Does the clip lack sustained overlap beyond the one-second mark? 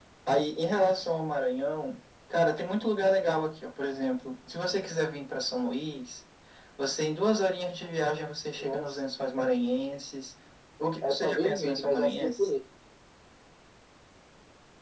No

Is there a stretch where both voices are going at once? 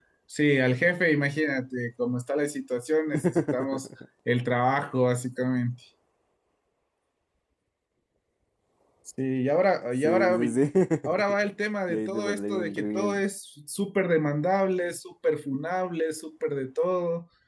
Yes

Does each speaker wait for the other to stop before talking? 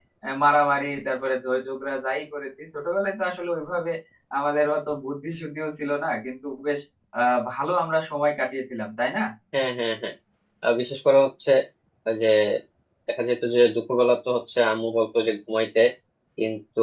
Yes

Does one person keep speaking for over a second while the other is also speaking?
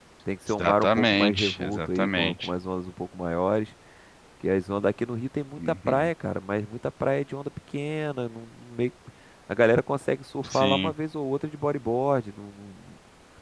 Yes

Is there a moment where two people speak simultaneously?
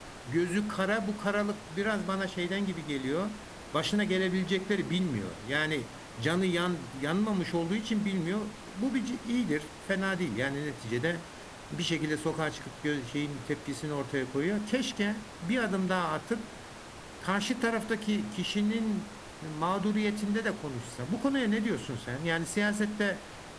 No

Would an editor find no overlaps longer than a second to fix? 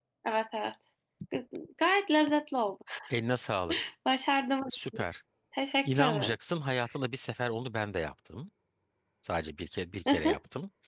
Yes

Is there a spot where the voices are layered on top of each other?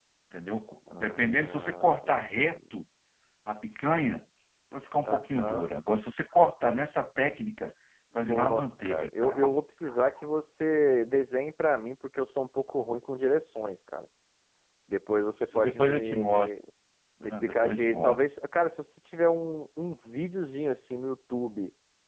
Yes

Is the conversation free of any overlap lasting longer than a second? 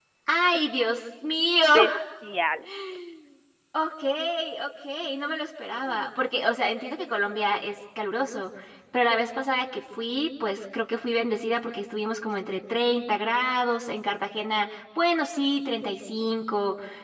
Yes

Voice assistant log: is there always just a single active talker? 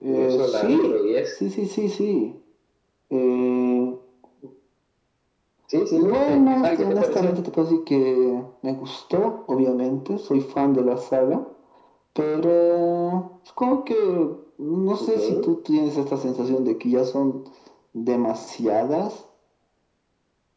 No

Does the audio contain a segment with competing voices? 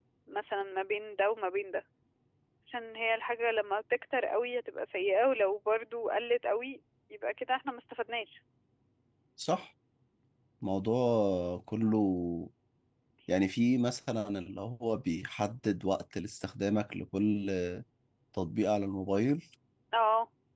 No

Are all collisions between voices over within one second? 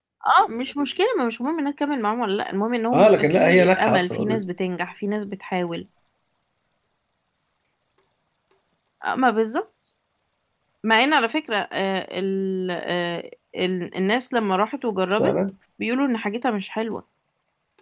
No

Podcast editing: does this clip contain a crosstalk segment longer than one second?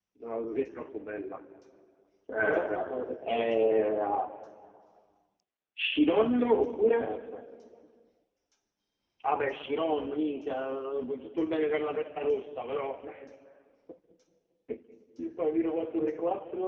Yes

